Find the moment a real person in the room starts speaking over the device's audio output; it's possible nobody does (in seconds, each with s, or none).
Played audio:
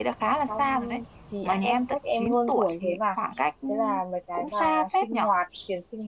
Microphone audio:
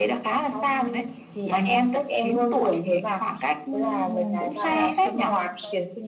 4.0 s